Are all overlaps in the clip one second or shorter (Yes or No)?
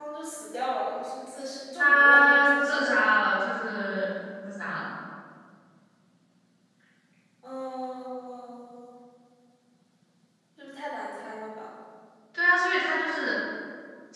No